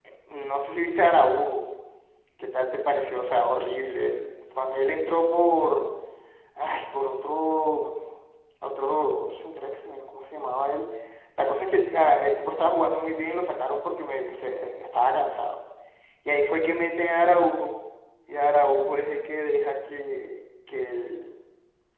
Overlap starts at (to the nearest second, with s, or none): none